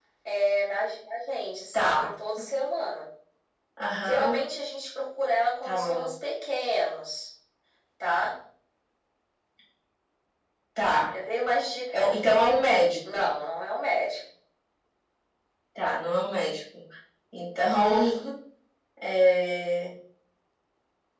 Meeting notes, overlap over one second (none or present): none